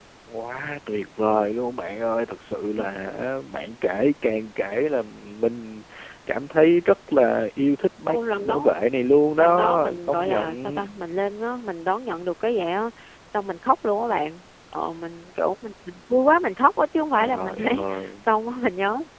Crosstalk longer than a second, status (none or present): present